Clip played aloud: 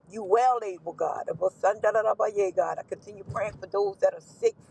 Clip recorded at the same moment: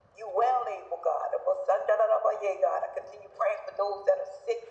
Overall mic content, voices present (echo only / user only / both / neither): echo only